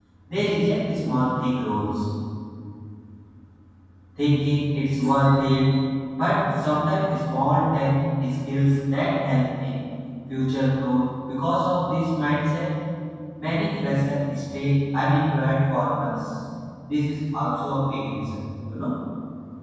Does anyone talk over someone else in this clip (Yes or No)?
No